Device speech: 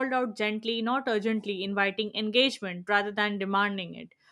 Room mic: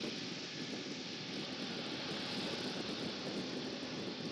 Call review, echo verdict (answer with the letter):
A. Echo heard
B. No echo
B